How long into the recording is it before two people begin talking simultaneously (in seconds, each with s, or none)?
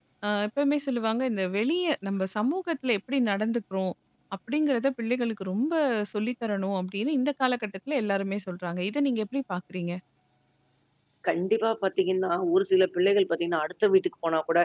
none